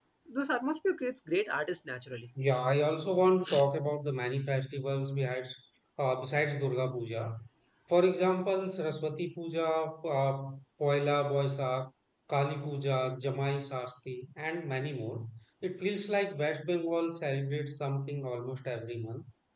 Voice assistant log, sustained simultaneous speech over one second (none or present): none